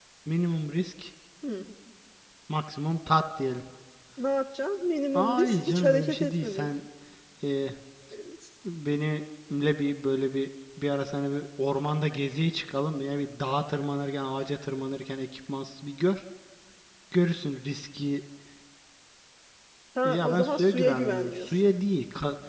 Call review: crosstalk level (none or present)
present